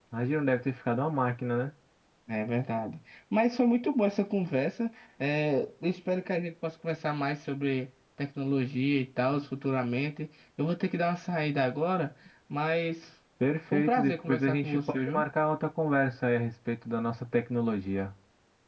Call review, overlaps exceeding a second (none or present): present